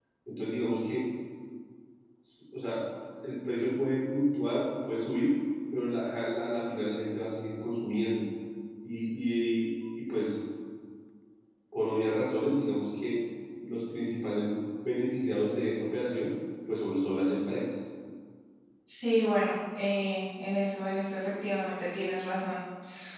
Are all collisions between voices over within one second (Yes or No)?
Yes